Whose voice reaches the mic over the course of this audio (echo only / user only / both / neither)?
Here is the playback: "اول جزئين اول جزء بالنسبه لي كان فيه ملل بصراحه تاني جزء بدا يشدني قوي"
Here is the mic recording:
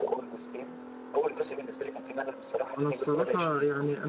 both